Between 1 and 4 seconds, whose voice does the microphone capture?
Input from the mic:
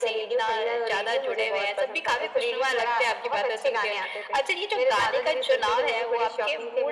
echo only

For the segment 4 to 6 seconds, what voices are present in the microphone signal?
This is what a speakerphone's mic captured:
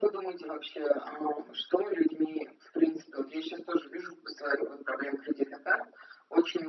echo only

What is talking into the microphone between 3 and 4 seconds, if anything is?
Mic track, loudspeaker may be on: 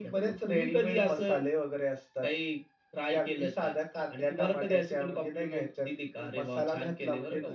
echo only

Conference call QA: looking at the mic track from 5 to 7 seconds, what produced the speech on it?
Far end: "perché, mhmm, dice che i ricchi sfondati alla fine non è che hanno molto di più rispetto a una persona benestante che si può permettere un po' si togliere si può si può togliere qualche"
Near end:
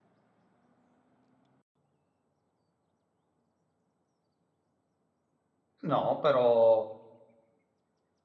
user only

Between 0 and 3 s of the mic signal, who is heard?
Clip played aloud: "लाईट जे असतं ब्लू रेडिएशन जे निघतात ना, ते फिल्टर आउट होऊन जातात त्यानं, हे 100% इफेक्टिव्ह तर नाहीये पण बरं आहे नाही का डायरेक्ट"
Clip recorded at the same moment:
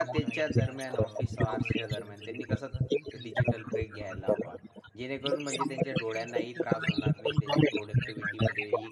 both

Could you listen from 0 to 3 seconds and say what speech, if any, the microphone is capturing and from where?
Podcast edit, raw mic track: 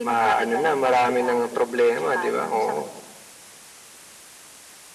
echo only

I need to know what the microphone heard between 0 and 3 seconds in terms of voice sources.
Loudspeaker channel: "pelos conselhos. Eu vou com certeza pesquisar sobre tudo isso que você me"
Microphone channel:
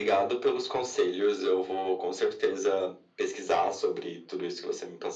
echo only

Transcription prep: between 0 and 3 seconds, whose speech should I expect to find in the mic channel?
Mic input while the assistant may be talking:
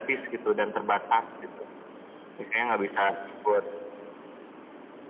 echo only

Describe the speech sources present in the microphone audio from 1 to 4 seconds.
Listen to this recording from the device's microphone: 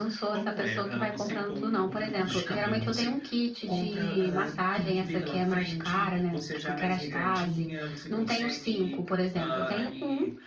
echo only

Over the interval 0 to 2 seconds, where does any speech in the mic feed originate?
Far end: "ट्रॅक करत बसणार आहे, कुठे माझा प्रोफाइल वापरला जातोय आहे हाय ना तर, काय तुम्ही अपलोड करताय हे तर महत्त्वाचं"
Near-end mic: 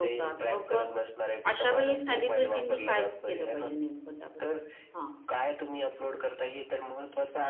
both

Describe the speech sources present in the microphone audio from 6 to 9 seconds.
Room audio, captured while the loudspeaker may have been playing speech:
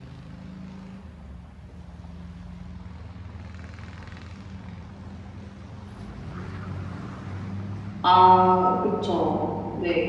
user only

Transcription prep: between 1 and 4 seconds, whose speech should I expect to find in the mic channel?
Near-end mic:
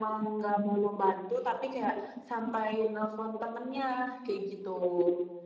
echo only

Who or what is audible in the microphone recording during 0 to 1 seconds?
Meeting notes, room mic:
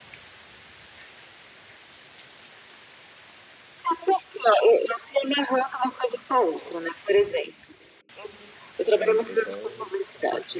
neither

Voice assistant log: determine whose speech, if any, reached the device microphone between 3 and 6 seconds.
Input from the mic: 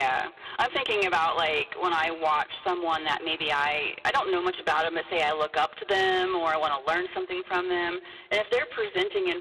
echo only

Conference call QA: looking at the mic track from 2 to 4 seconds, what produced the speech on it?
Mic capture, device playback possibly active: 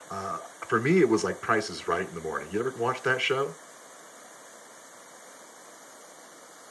user only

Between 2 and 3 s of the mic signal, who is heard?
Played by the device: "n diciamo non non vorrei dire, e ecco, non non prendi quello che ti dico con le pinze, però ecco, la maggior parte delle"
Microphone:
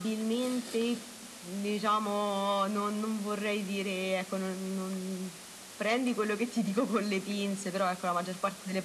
echo only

